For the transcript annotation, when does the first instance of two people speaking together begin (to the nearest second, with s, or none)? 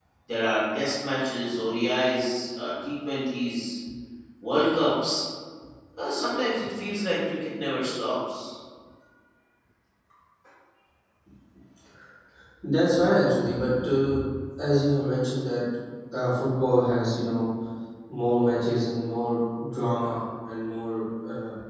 none